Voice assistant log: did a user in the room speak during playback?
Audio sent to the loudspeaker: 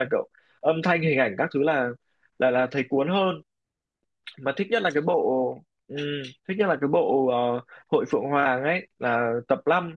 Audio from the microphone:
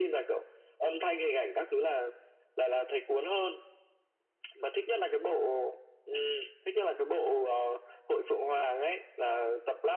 No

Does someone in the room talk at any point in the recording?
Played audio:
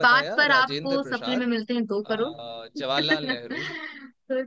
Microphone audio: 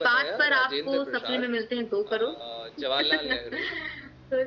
No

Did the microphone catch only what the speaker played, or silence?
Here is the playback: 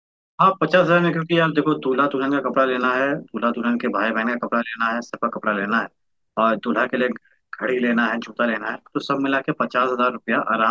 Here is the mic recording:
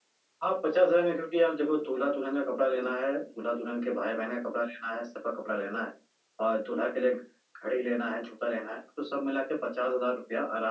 Yes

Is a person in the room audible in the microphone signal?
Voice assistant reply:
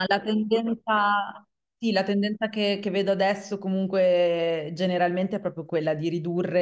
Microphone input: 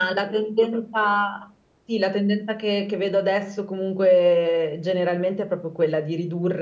No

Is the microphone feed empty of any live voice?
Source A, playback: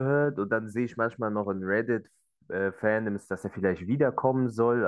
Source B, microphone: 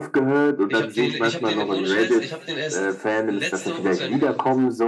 No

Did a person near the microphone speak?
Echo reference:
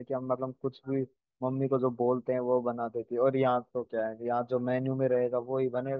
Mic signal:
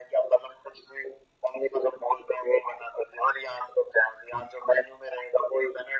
No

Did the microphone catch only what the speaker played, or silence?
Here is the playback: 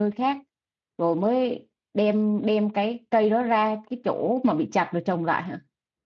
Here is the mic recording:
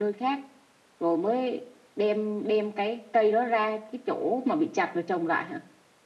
Yes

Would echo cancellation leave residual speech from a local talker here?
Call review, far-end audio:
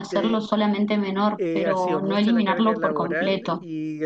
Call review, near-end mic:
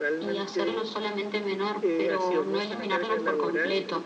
No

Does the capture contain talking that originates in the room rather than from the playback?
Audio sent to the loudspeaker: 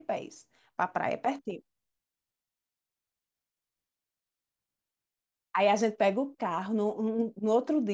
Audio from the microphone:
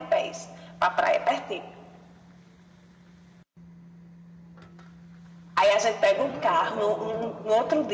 Yes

